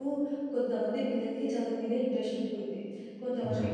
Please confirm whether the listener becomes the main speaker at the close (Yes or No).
No